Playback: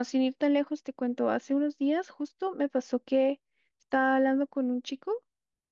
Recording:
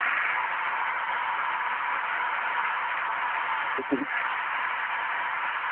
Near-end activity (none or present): present